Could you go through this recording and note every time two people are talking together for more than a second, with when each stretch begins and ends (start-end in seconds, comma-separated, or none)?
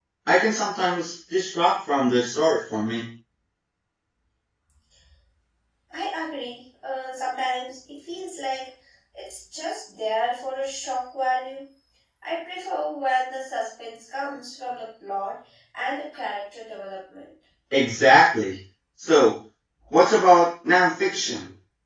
none